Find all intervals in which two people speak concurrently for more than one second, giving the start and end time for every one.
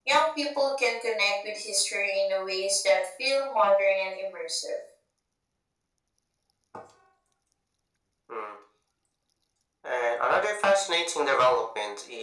none

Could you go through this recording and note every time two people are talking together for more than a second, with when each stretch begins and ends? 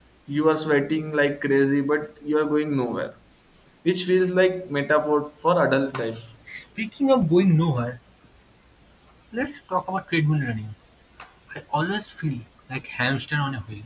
none

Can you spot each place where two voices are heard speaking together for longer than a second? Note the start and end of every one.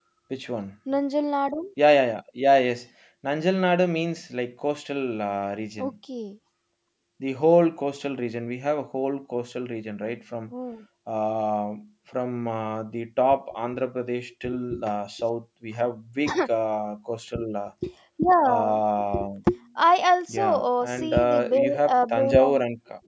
20.3-22.6

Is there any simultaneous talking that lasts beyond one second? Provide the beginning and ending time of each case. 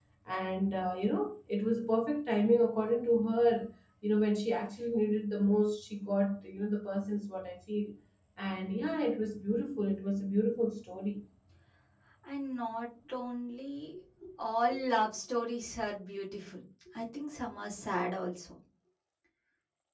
none

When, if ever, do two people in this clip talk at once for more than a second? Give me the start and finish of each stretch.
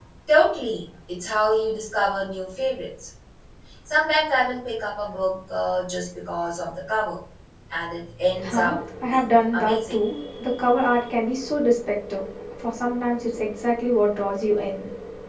8.4-10.0

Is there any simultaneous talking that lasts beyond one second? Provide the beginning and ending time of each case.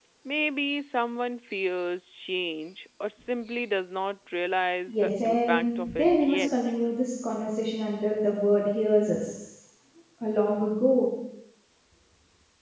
5.0-6.5

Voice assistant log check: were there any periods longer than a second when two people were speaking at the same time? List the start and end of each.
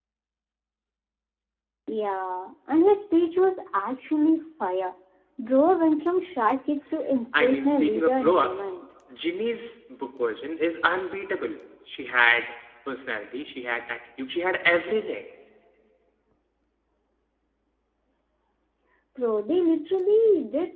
7.4-8.7

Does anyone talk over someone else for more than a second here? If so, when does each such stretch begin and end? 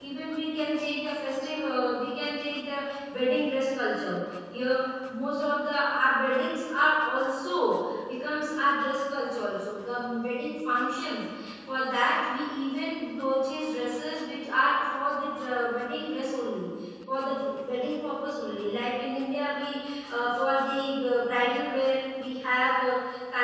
none

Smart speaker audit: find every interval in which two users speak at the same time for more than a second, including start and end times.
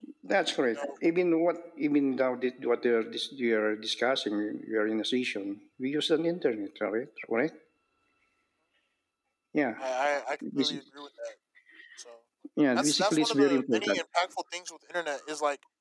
12.8-14.0

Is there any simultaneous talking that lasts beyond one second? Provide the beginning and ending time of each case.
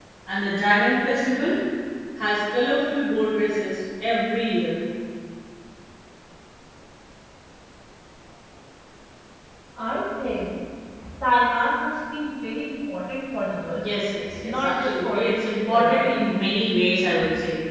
14.4-16.1

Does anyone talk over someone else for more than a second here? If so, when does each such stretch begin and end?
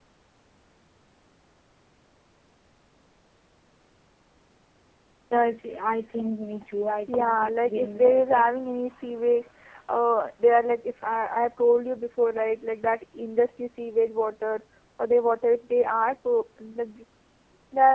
7.2-8.5

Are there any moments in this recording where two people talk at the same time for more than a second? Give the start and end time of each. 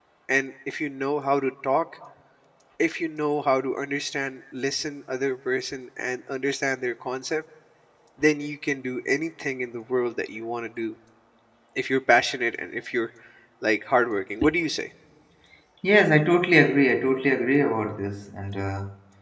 none

